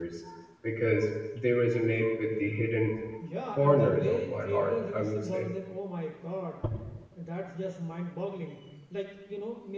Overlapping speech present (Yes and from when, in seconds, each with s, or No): Yes, from 3.5 s